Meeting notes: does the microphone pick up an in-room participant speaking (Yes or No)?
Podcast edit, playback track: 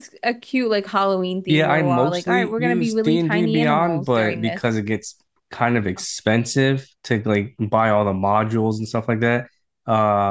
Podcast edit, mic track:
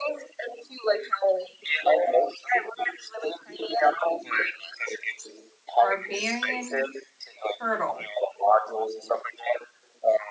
Yes